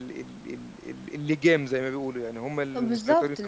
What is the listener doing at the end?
taking over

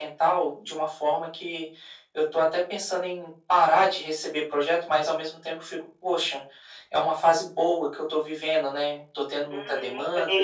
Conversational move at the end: taking over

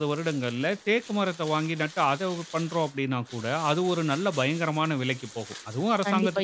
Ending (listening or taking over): taking over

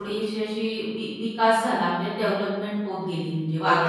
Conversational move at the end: taking over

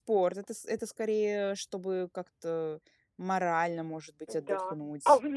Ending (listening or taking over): taking over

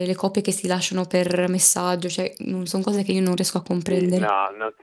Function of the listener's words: taking over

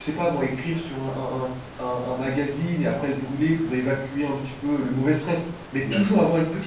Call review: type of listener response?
listening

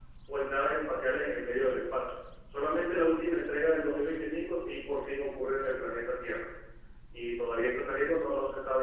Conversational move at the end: listening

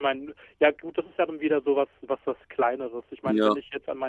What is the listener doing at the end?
listening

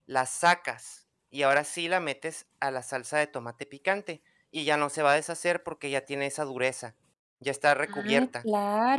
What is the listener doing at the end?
taking over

